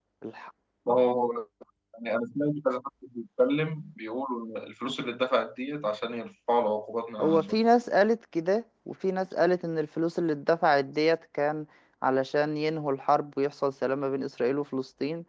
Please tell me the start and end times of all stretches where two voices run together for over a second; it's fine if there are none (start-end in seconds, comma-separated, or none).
none